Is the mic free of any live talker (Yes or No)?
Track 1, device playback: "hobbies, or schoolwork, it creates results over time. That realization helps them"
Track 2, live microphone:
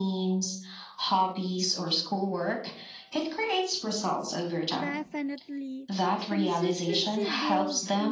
No